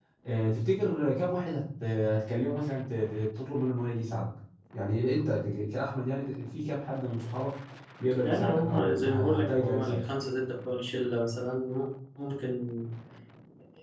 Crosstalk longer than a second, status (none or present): present